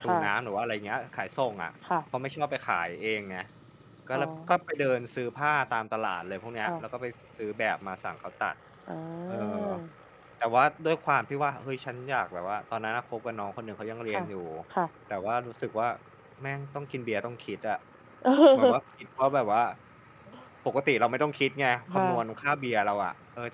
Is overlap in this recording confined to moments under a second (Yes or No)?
Yes